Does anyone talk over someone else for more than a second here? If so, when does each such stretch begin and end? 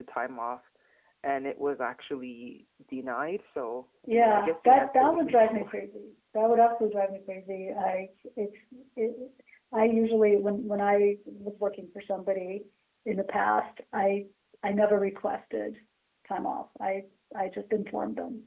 4.1-5.7

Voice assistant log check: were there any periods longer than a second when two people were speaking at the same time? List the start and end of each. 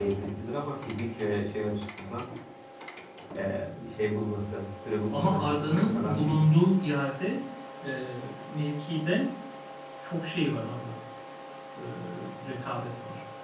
5.1-6.4

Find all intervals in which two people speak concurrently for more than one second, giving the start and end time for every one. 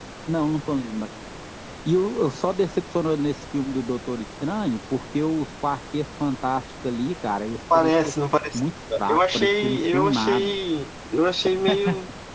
9.1-10.5

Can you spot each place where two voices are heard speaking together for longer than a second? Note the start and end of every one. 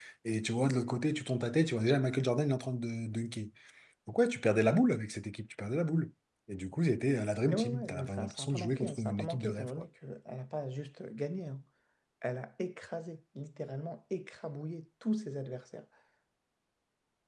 7.5-9.7

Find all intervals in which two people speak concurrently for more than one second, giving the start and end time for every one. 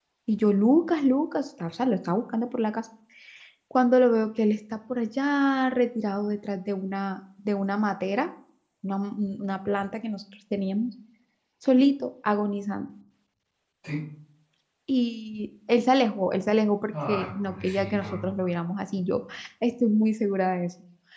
16.9-18.3

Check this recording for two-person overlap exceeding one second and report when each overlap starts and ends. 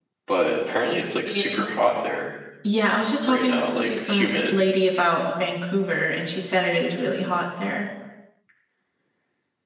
3.3-4.5

